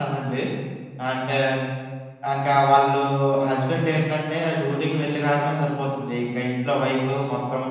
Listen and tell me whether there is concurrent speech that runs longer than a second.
No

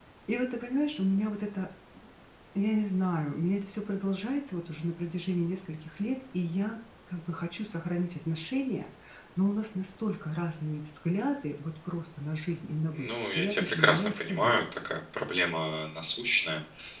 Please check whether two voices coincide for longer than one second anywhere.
Yes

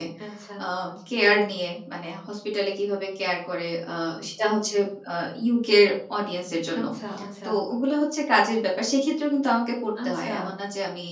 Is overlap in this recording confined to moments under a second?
Yes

